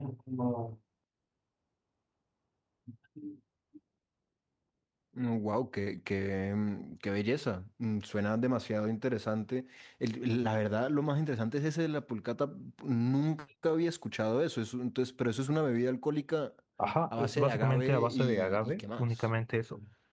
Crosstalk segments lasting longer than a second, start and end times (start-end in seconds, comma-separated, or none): 17.2-19.1